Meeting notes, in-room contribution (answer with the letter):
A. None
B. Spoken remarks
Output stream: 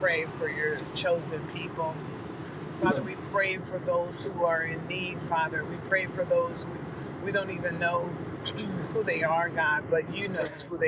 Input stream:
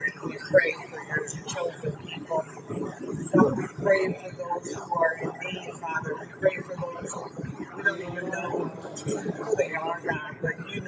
B